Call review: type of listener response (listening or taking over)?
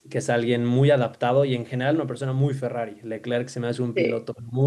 listening